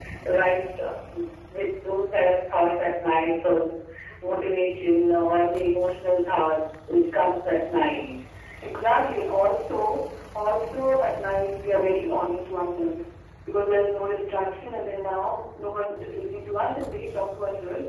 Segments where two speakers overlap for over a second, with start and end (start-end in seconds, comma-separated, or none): none